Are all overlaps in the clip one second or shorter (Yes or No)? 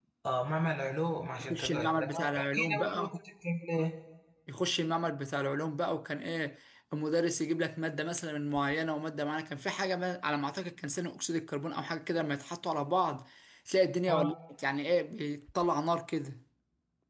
No